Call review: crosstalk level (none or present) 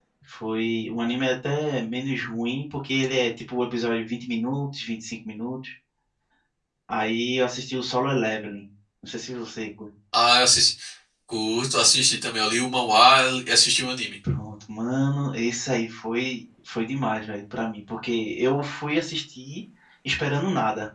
none